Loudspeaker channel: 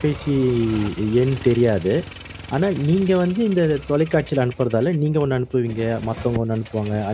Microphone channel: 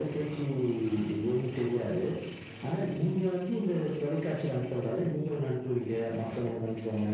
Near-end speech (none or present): none